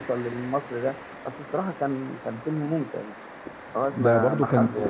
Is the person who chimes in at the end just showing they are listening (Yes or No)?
No